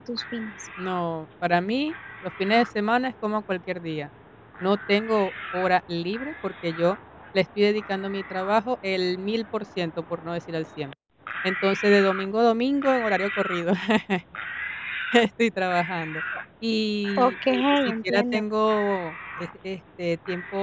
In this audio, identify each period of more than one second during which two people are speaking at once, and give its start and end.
17.2-18.4

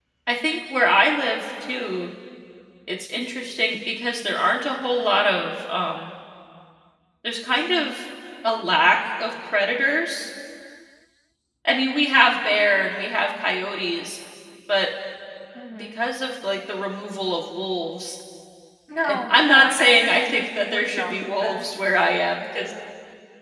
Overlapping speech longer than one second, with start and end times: 19.0-21.7

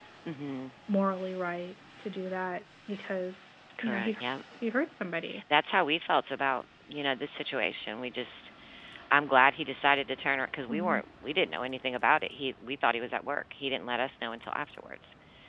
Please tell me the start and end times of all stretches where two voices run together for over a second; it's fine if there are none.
none

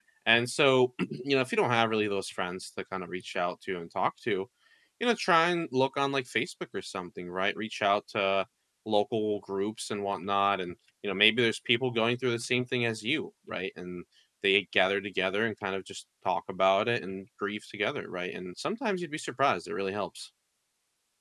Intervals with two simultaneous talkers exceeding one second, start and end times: none

